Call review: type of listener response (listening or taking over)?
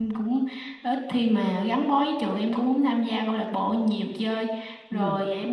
listening